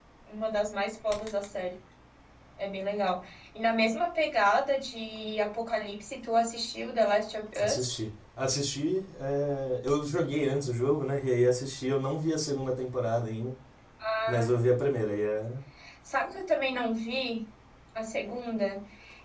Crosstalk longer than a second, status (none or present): none